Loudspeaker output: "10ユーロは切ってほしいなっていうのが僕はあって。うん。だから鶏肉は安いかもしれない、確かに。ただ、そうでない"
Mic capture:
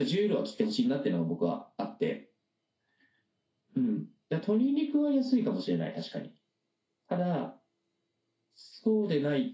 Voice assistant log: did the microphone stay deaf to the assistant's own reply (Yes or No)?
No